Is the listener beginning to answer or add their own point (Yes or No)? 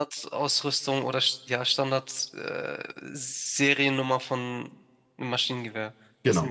Yes